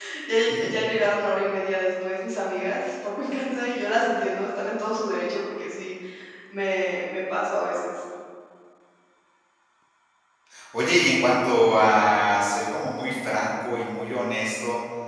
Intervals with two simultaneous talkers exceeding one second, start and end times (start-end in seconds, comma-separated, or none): none